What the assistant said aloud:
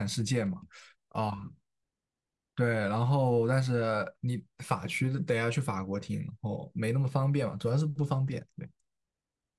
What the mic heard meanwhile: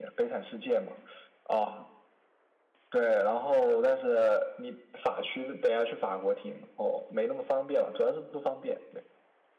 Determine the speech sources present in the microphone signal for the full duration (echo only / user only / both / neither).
echo only